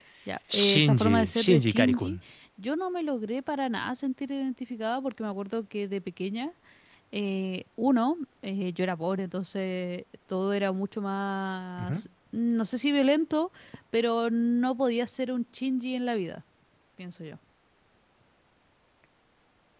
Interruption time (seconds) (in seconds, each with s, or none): 0.5 s